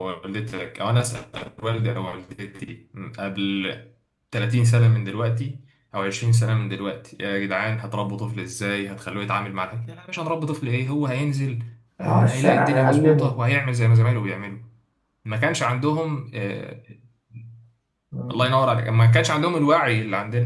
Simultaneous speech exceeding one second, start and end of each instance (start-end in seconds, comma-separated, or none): 12.0-13.3